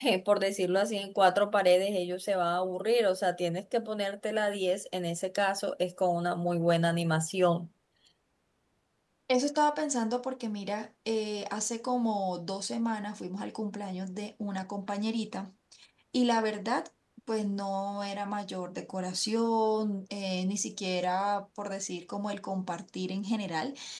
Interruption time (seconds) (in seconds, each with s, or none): none